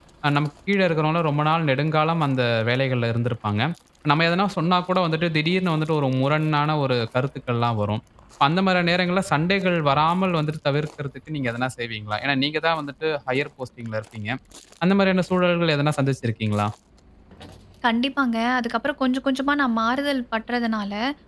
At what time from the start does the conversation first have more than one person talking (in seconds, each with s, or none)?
none